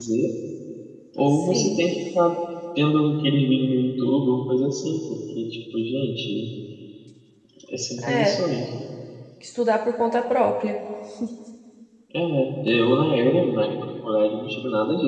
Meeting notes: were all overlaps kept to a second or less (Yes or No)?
Yes